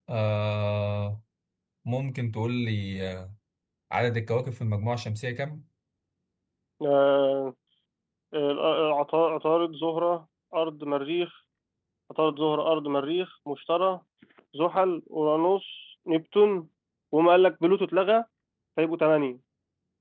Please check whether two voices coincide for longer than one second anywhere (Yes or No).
No